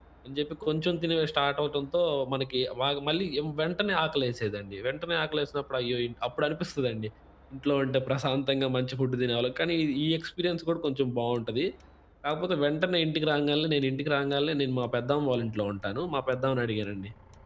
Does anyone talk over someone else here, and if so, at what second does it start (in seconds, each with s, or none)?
none